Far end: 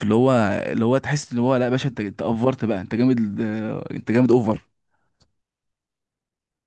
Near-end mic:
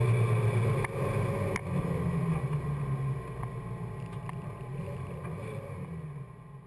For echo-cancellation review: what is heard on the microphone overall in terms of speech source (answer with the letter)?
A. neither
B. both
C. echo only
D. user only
A